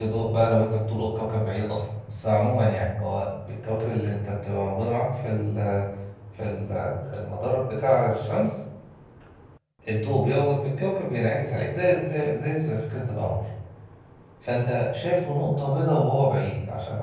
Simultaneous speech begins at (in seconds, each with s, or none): none